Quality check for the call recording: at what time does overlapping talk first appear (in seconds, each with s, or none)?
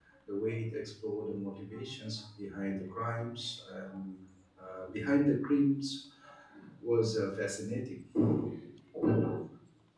none